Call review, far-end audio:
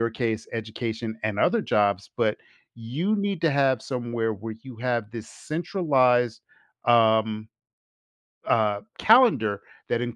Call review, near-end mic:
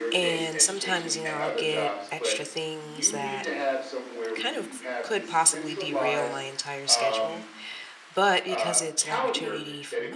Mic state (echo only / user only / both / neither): both